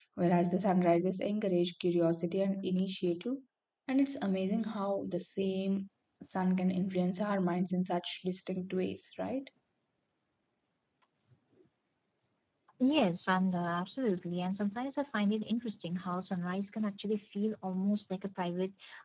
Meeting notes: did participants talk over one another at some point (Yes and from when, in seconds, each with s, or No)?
No